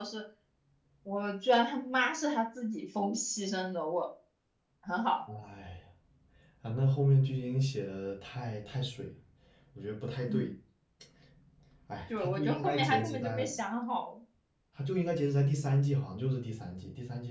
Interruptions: present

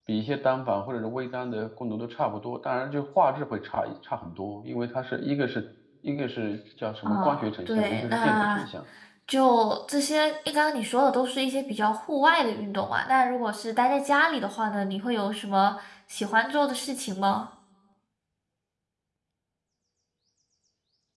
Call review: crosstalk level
present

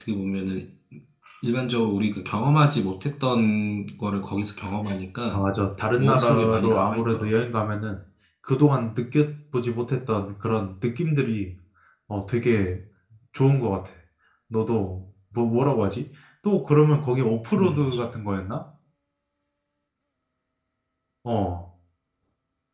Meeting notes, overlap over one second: present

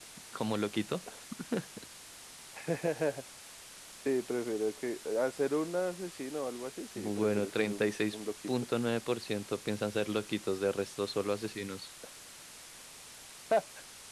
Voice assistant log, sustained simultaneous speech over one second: present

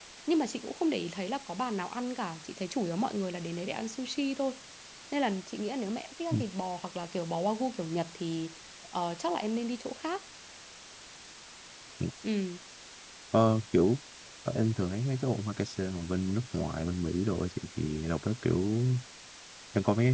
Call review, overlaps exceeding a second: none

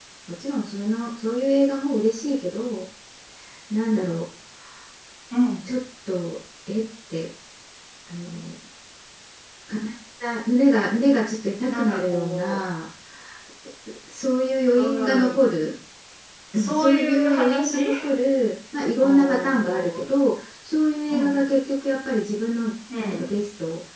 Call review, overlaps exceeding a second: present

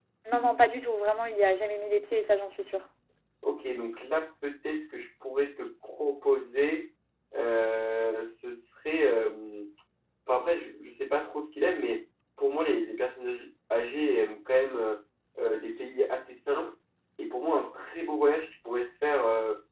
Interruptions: none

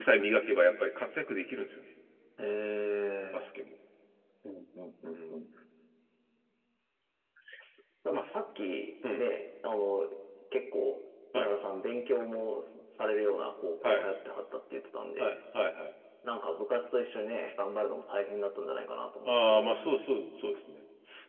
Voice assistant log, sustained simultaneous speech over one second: none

